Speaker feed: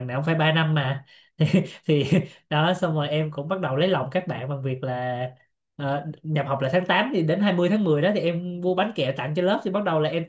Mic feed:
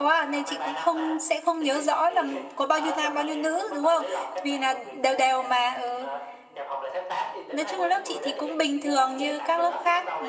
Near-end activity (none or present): present